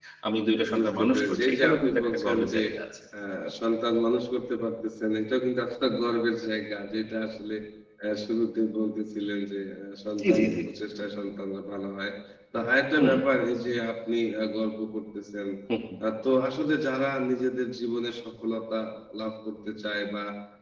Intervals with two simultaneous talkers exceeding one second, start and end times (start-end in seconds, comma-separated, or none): 0.8-2.6